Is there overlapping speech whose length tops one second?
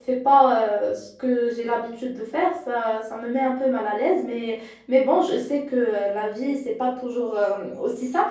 No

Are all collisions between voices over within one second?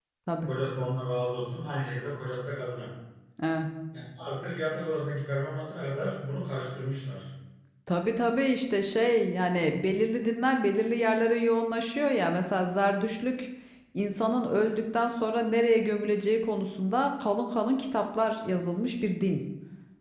Yes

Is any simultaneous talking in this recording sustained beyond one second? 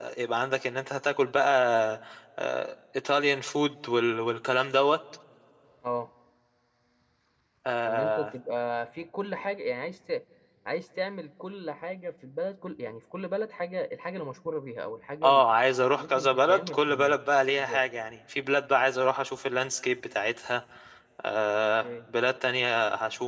Yes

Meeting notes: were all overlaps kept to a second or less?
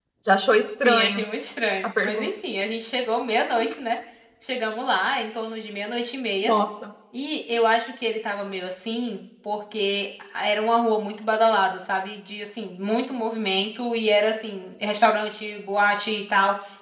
Yes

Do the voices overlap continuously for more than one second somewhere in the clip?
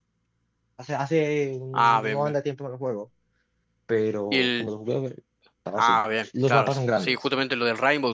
Yes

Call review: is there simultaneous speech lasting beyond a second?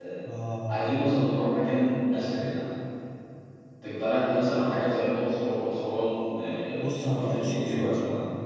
Yes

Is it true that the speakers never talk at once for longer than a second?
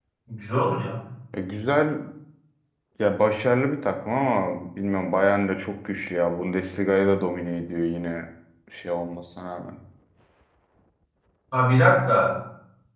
Yes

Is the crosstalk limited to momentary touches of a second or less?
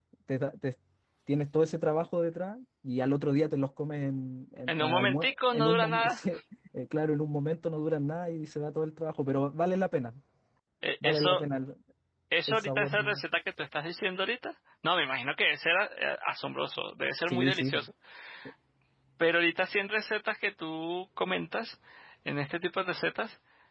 No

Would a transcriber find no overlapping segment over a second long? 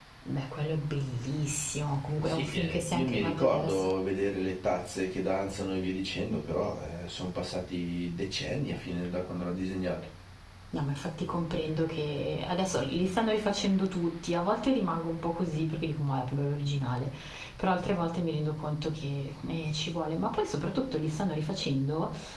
No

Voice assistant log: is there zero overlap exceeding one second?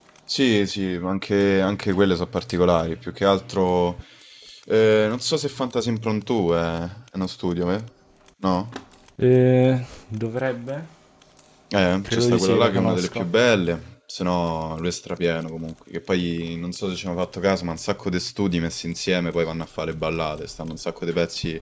No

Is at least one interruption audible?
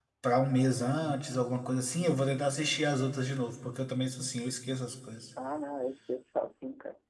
No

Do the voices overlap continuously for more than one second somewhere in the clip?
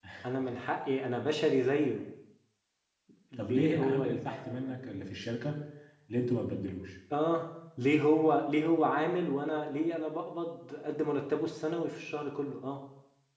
Yes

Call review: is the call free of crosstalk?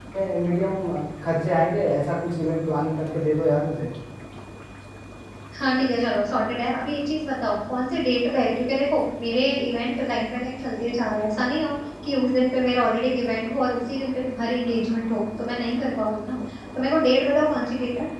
Yes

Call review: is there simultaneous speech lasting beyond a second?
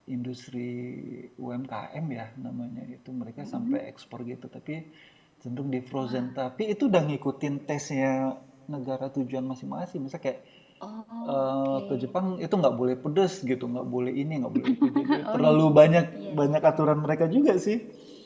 Yes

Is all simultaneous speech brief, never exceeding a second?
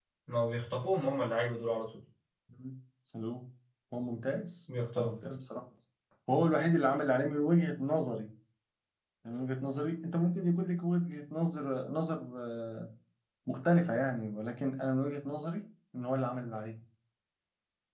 Yes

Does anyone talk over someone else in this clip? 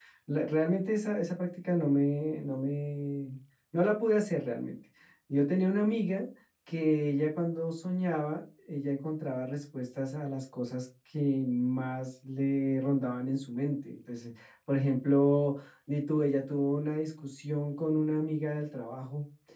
No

